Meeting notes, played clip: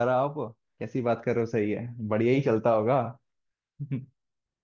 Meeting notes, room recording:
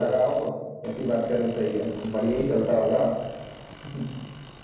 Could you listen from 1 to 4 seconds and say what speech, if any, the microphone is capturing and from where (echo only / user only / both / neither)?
echo only